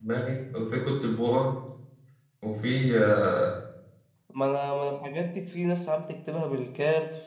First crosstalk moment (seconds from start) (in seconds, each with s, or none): none